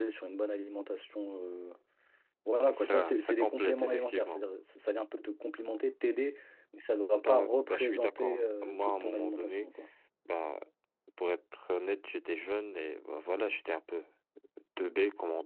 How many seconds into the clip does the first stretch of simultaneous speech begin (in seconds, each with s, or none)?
2.7 s